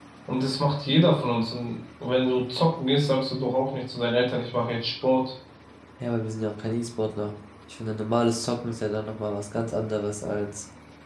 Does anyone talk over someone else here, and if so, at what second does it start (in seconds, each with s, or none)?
none